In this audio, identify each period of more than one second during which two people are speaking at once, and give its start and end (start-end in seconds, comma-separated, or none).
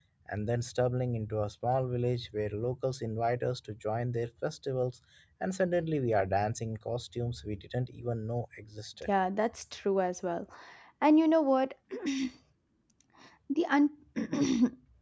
none